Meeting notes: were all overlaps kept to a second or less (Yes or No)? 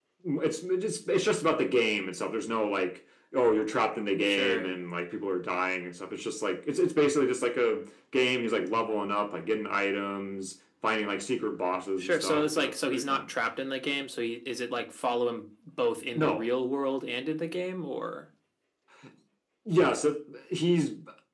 No